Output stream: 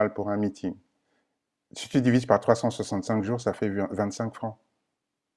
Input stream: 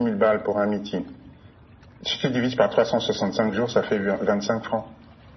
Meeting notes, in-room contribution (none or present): none